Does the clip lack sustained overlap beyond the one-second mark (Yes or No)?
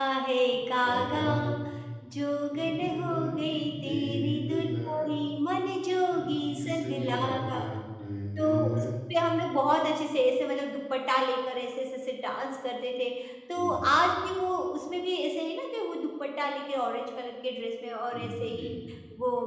No